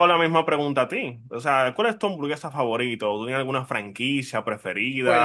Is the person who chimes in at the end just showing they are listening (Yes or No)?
No